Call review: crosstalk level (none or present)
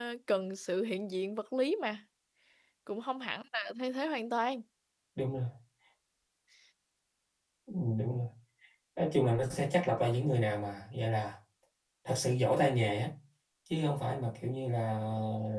none